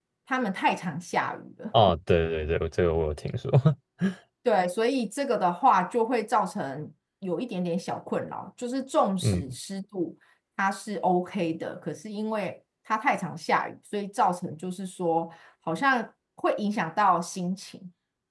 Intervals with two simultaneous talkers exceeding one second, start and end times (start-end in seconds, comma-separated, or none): none